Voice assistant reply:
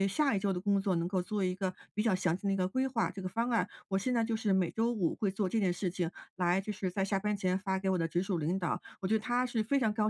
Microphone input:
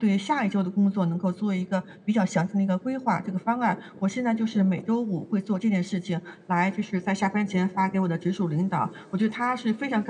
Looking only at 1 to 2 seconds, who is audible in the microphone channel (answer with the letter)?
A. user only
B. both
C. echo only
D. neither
C